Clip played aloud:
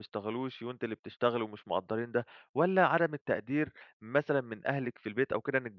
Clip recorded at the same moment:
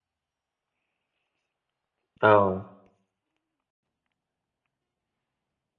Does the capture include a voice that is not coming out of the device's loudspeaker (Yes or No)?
Yes